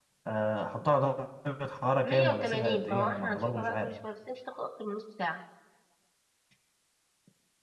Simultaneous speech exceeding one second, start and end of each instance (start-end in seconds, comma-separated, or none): 2.0-3.9